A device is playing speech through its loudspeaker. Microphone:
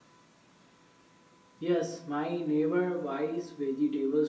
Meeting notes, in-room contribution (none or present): present